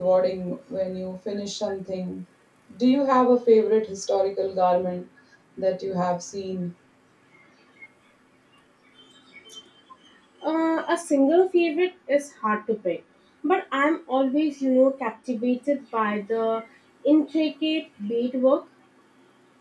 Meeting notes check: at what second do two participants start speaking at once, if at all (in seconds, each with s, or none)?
none